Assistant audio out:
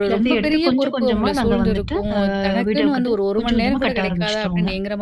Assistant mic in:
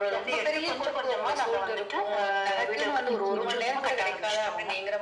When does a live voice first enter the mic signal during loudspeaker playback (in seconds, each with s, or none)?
3.1 s